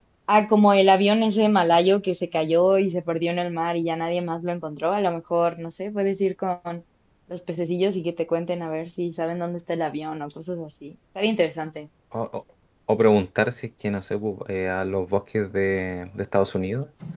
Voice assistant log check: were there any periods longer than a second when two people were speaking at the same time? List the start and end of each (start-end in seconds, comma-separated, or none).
none